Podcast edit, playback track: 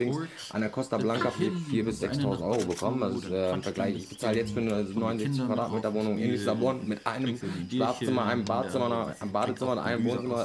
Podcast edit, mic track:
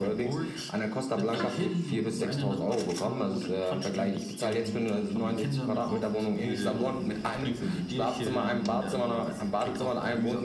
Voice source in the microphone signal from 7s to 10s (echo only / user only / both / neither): echo only